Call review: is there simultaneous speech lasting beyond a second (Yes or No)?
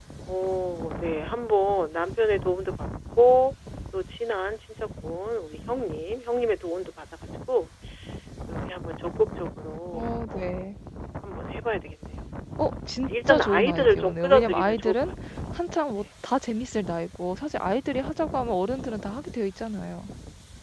Yes